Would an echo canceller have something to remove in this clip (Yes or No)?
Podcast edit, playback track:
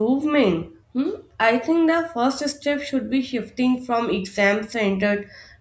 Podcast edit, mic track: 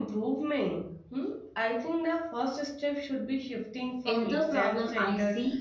Yes